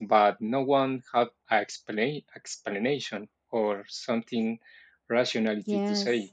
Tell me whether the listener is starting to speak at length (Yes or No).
Yes